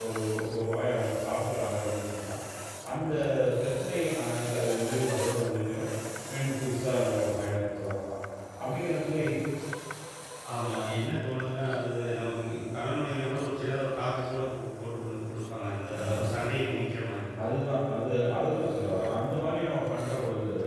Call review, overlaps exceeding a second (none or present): none